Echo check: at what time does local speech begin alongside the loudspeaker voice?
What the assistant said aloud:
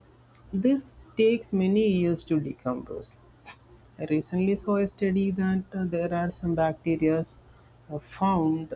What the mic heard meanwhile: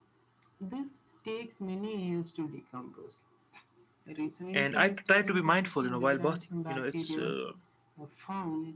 4.5 s

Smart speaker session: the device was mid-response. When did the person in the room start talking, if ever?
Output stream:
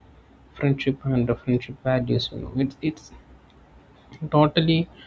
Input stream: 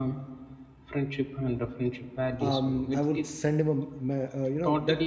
2.5 s

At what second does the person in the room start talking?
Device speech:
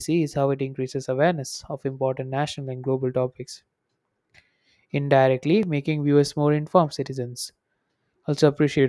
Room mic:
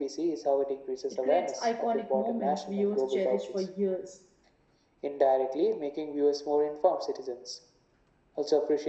1.1 s

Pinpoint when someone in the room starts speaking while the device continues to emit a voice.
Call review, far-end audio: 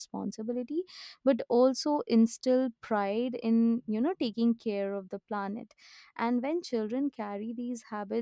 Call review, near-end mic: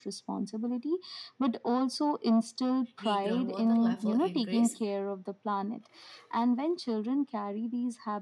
3.0 s

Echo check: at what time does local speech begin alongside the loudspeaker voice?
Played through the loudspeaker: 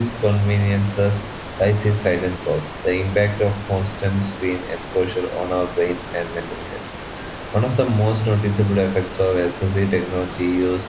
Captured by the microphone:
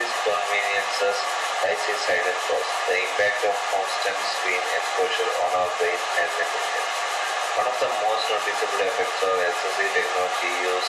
none

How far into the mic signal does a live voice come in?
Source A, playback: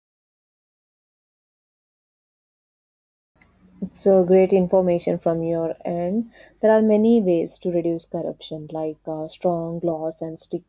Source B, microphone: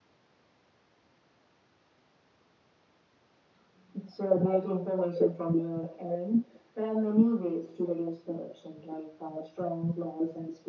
none

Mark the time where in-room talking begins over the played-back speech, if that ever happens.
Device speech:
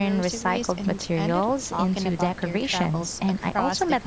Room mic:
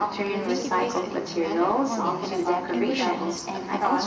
0.3 s

